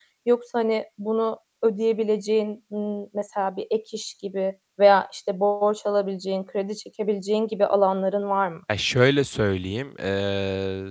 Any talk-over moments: No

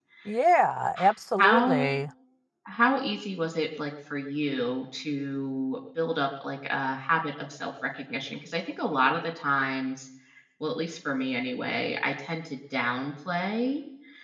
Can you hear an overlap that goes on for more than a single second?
No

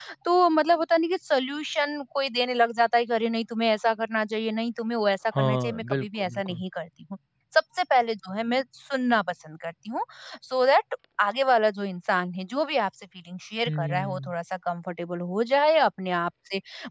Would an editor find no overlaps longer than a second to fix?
No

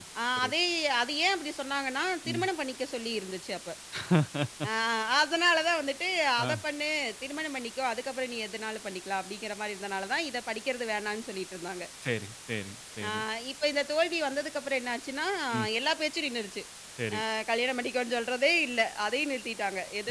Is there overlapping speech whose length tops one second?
No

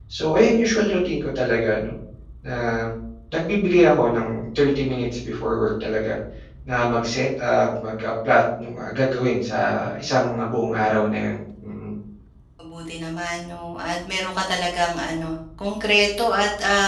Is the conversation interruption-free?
Yes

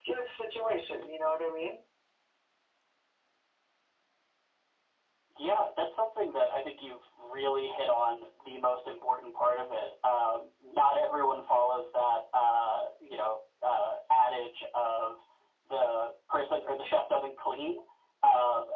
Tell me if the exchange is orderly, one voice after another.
Yes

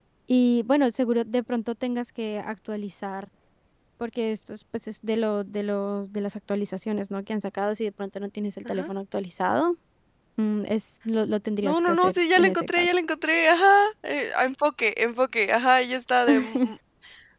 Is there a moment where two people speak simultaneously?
Yes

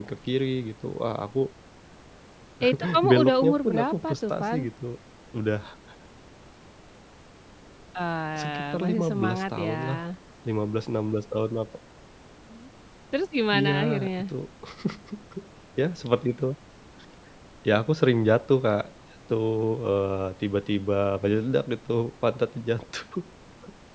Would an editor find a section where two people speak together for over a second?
Yes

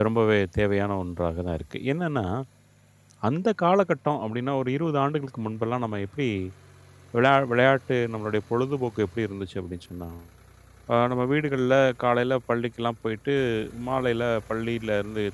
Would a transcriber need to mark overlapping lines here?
No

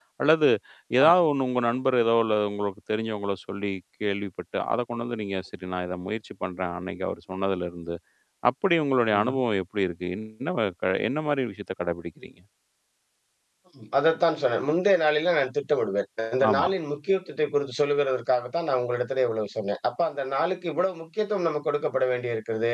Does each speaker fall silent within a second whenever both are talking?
Yes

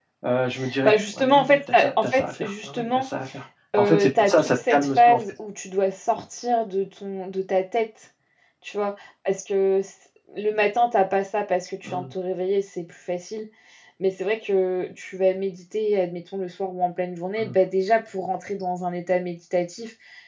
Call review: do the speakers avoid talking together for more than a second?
No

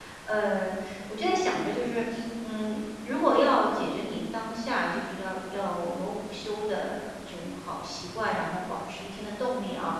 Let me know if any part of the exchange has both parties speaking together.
No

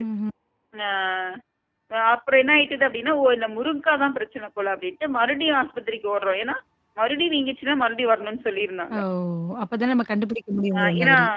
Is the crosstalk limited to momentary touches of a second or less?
Yes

